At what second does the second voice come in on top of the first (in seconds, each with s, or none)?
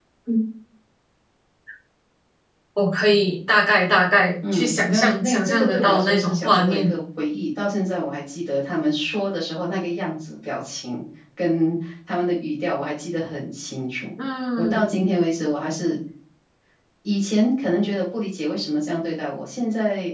4.5 s